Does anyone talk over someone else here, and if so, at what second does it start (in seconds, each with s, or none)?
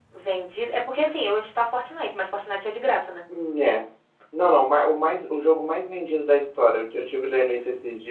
none